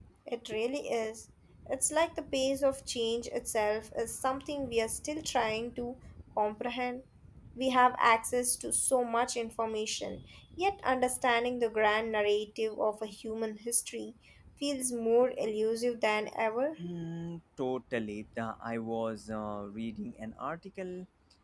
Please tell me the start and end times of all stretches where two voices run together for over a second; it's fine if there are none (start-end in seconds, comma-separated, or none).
none